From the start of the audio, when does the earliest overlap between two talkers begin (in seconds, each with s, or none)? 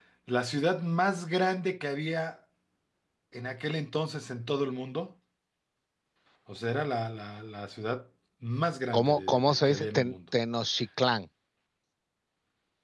8.9 s